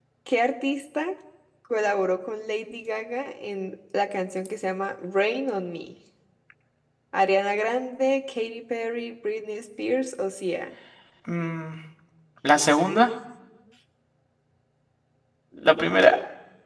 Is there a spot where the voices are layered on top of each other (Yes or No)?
No